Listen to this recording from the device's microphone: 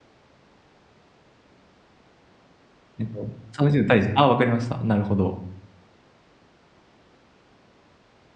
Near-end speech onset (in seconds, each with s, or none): 3.0 s